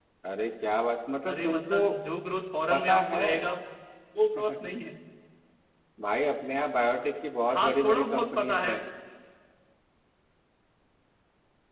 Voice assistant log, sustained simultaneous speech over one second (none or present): present